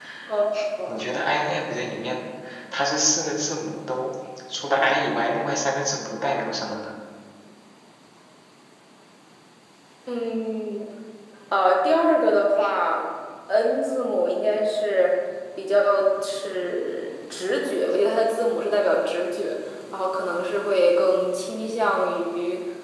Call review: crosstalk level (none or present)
none